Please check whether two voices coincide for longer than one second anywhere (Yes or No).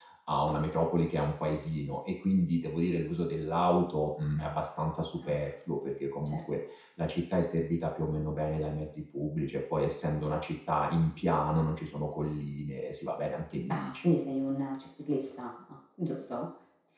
No